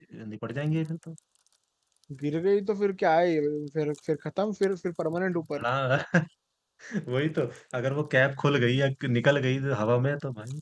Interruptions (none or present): none